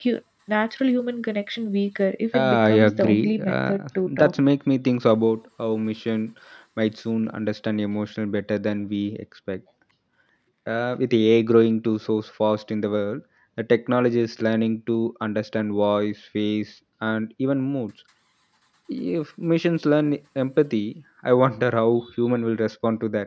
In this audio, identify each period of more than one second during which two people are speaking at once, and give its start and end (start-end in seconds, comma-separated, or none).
2.3-3.8